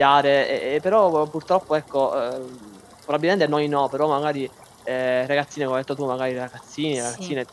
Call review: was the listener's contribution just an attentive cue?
Yes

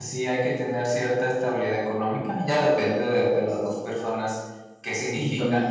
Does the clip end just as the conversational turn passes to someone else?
Yes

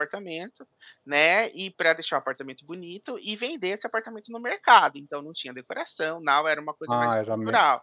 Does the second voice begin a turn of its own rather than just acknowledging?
Yes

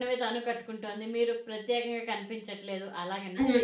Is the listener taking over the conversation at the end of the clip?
Yes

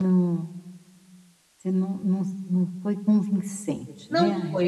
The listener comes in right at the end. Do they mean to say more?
Yes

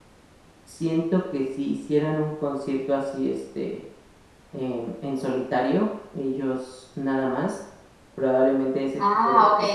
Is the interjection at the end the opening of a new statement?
Yes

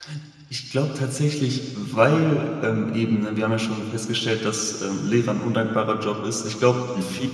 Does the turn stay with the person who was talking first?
Yes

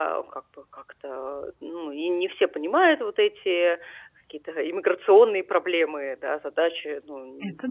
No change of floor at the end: Yes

